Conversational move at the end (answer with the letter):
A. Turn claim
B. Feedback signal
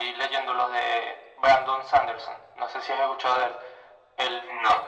B